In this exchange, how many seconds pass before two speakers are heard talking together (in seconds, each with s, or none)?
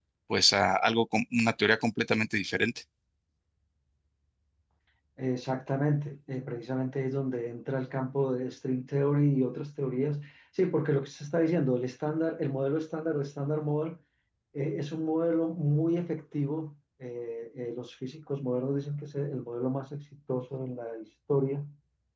none